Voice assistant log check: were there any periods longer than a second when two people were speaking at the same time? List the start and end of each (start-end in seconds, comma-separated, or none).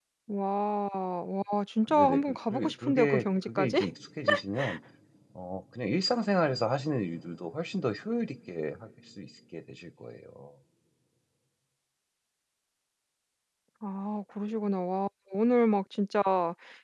1.9-3.8